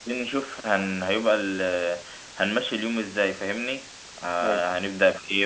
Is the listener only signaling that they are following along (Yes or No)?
Yes